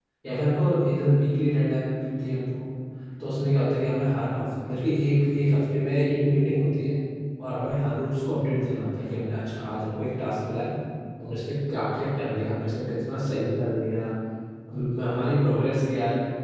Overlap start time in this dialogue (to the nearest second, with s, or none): none